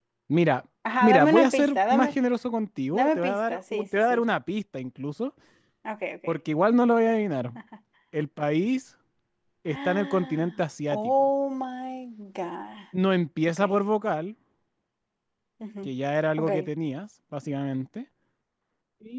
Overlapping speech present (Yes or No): Yes